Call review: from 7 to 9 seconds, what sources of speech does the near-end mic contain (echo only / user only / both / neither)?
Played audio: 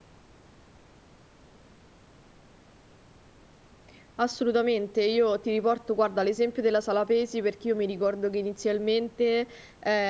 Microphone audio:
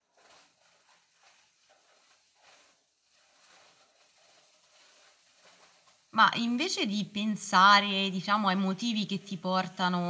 user only